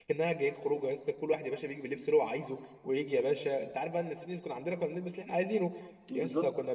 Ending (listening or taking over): listening